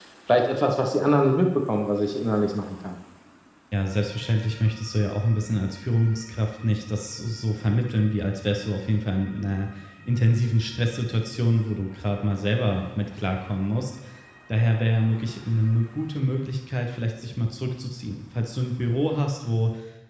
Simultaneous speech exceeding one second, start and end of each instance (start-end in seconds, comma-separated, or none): none